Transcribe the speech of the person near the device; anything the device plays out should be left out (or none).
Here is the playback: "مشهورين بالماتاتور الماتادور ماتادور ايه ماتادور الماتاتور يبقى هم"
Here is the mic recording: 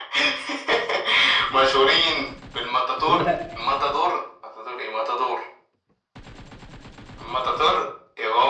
لا